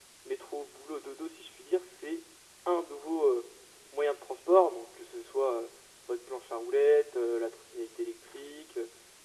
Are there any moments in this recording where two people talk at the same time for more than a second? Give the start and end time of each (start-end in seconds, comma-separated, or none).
none